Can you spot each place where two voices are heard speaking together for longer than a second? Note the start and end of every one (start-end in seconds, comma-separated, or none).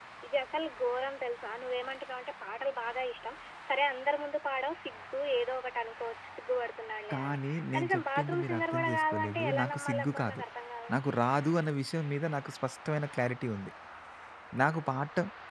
7.1-10.4